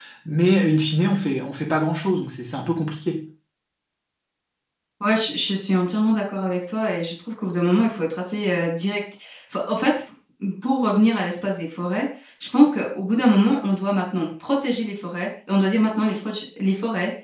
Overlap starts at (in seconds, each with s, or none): none